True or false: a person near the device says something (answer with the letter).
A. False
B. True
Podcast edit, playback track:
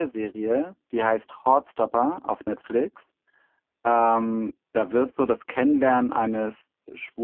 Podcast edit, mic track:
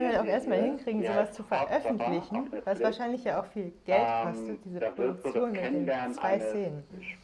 B